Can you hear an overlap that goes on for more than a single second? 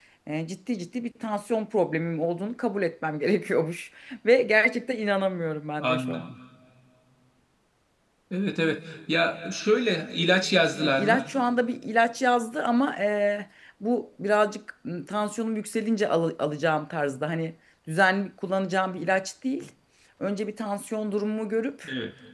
No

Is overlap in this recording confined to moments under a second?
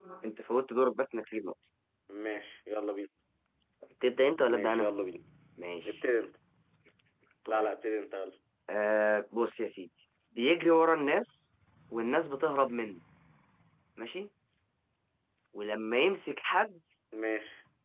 Yes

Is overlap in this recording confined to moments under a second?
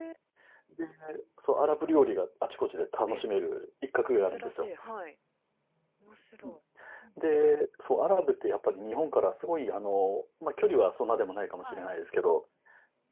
Yes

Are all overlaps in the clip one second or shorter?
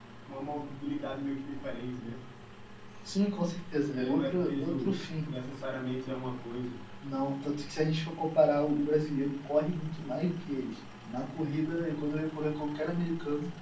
No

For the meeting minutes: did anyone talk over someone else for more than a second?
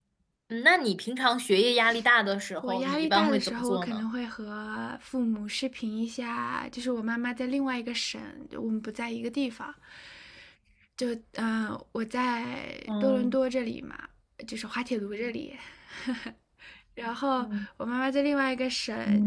Yes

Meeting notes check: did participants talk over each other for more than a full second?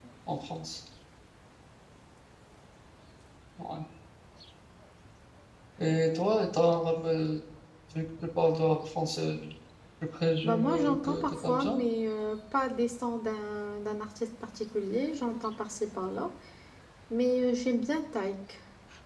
Yes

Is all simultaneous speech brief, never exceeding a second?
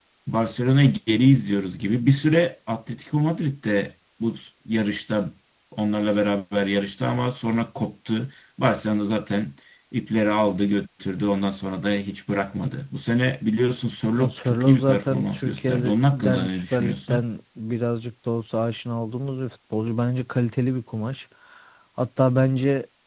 No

